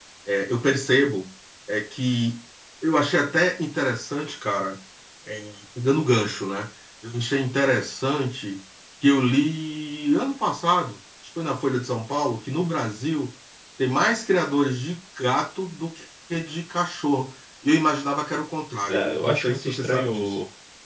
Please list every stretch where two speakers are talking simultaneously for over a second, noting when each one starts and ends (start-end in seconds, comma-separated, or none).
18.9-20.3